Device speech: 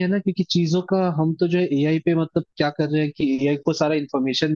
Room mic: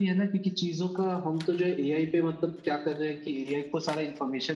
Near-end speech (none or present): none